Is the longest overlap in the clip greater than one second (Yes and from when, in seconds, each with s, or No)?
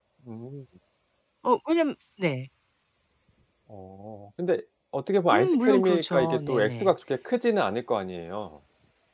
Yes, from 5.3 s